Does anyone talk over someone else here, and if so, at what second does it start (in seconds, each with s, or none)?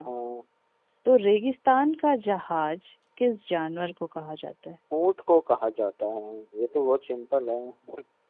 none